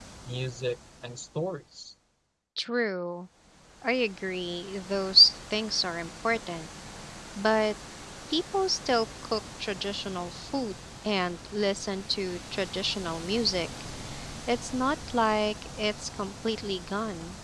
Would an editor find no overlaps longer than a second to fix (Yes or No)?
Yes